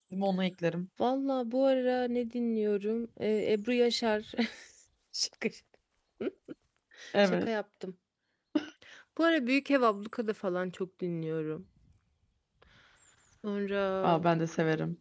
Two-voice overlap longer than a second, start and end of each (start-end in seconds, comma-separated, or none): none